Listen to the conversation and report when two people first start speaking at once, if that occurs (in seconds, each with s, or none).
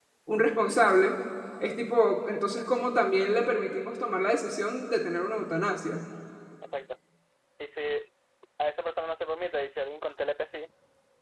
none